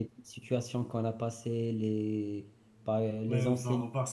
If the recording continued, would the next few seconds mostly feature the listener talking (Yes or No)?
Yes